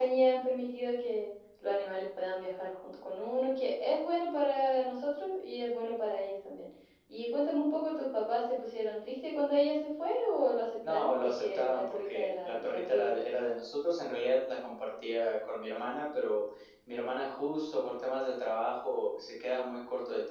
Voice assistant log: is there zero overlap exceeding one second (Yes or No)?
No